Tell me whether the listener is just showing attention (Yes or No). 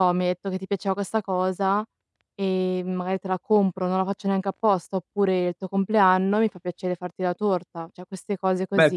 No